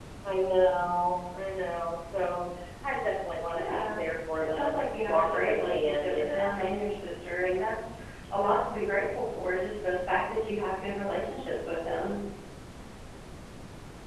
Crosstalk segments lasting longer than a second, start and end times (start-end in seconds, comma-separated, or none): 4.6-6.5